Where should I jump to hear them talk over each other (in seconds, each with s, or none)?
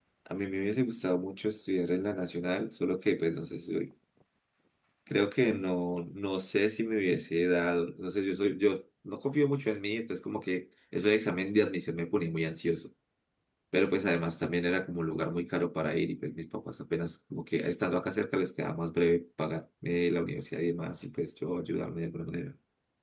none